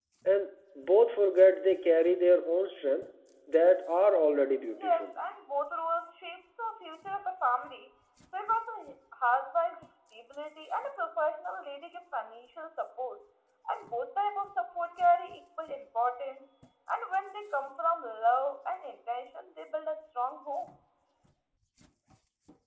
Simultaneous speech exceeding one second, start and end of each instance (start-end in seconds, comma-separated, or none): none